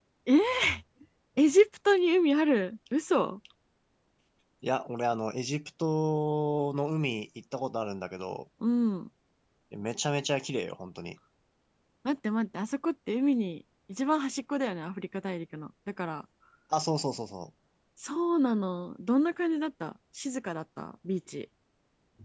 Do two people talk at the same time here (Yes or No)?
No